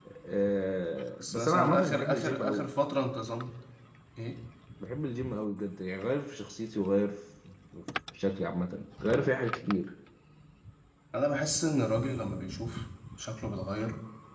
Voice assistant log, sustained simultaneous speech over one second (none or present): present